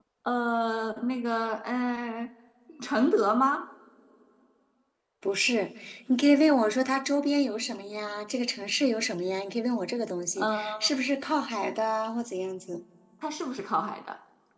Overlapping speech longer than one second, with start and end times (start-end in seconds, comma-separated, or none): none